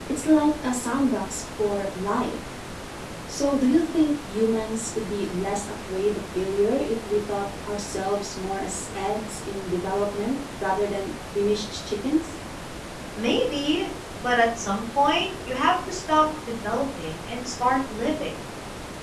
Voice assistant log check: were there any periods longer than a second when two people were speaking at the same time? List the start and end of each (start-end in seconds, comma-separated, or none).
none